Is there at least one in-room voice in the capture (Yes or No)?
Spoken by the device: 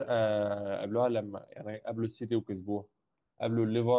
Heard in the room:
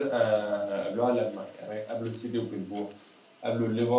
No